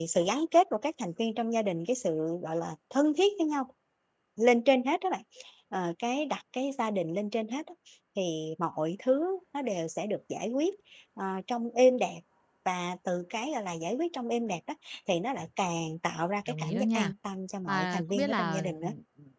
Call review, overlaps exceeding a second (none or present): present